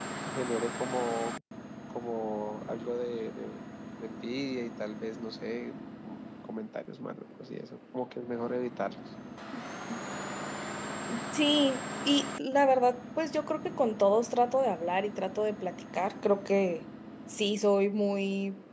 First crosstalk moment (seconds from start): none

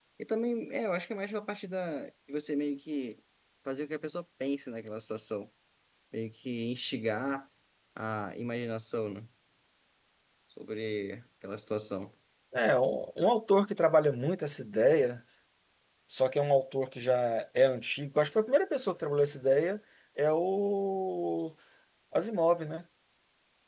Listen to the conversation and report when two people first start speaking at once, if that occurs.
none

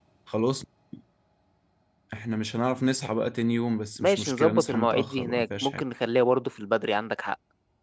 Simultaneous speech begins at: 4.0 s

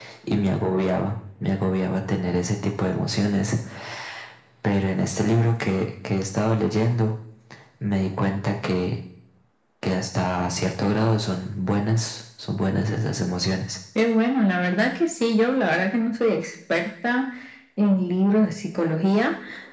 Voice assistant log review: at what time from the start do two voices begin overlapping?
none

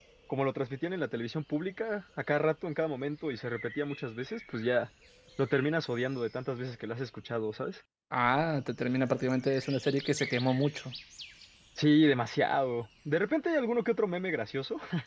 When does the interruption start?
none

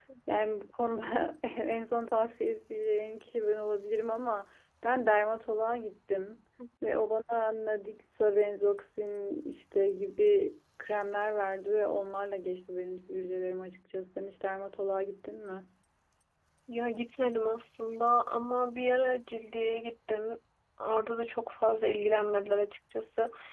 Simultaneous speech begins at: none

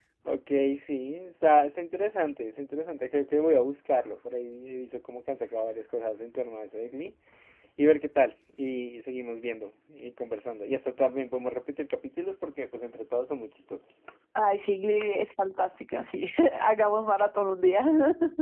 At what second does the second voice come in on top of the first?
none

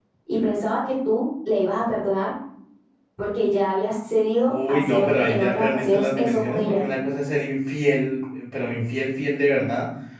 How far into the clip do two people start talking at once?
4.5 s

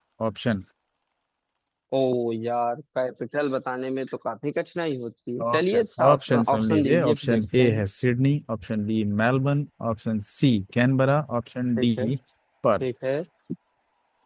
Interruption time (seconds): 5.4 s

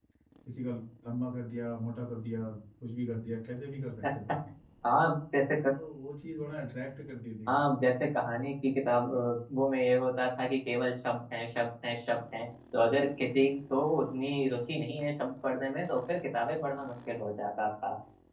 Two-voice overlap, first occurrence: none

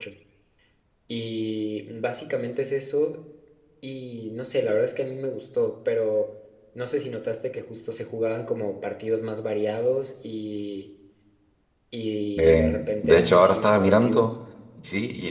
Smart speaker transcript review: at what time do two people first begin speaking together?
12.4 s

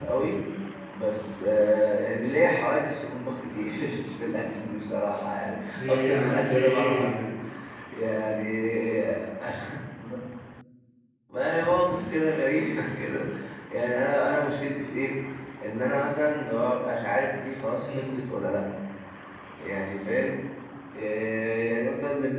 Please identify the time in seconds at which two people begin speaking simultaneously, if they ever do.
5.9 s

